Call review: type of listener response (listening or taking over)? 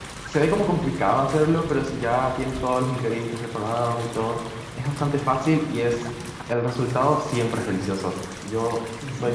taking over